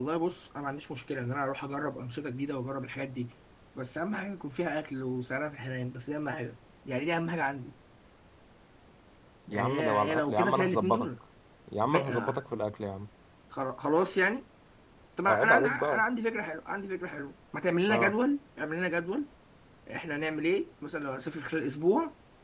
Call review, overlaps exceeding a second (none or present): present